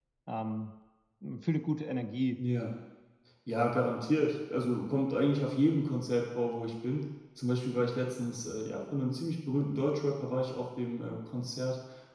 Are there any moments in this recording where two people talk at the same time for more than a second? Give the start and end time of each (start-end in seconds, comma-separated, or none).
none